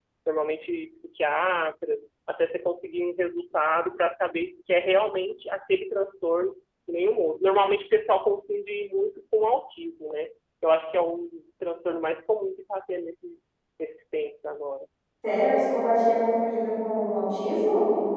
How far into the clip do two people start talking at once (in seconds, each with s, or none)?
none